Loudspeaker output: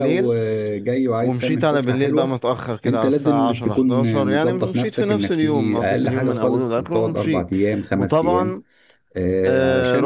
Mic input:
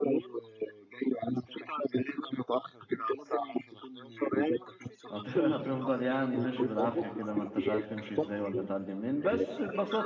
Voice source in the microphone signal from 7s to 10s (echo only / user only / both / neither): both